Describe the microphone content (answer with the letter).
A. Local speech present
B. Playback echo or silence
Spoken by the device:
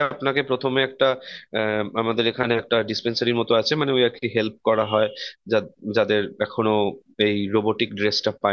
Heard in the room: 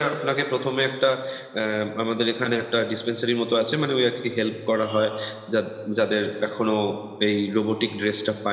B